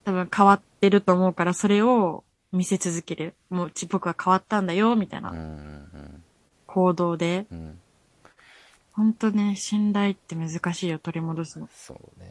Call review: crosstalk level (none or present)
none